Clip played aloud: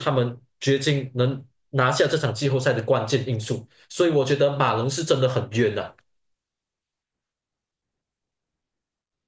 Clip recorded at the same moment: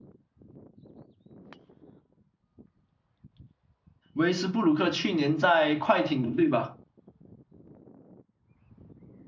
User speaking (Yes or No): Yes